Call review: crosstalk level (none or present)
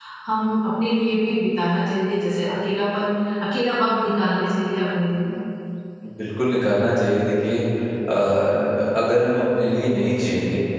none